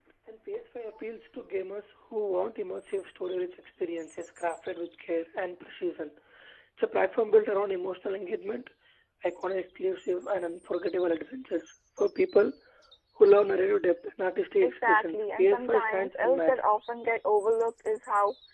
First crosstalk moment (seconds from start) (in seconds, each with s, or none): 14.6 s